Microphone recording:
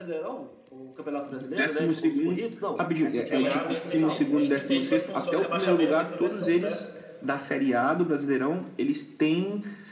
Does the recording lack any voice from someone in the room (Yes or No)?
No